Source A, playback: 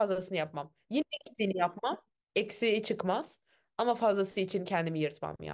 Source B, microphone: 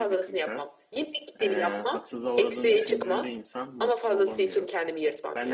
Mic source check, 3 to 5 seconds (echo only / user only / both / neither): both